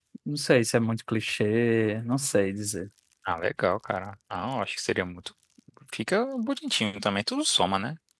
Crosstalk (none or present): none